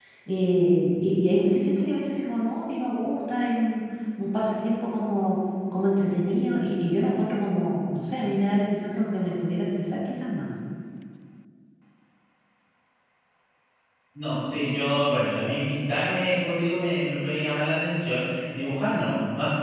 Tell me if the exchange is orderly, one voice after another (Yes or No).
Yes